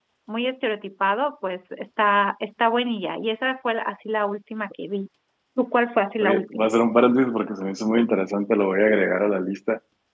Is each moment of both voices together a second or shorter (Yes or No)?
Yes